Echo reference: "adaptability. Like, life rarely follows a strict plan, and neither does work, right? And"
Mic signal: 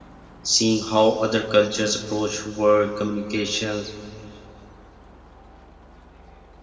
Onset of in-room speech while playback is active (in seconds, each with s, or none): 0.4 s